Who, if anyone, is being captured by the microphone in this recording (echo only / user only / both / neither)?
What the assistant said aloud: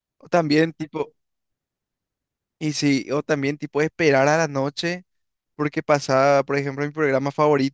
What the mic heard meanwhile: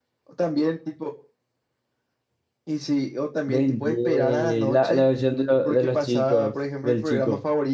both